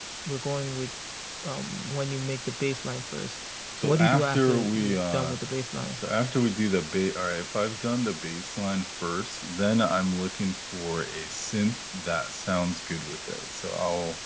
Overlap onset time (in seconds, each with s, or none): 3.8 s